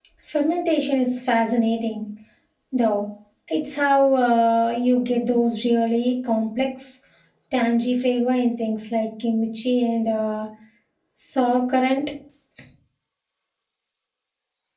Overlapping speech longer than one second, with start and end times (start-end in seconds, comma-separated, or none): none